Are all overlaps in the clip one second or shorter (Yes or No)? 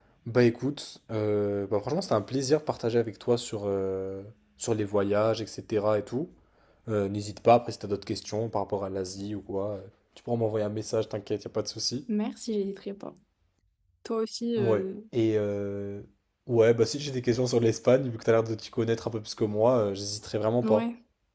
Yes